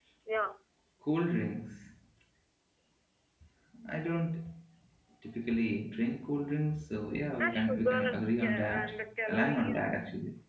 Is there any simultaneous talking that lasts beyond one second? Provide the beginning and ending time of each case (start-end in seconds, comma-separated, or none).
7.4-8.9